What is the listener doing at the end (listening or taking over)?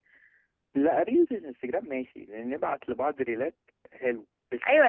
taking over